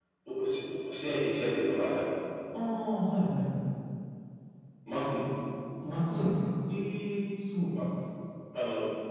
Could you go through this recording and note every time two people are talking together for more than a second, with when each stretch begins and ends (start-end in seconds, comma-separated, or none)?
none